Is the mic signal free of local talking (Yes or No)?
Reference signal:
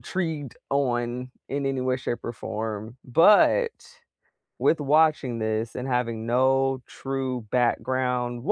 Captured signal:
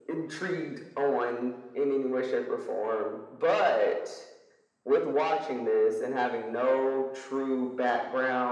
Yes